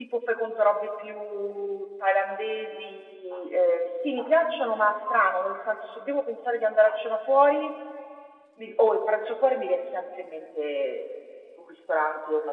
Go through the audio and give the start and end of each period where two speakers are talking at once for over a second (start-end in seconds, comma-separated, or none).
none